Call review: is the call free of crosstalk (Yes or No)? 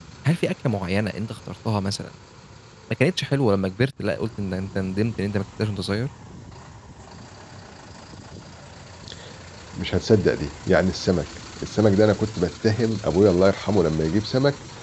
Yes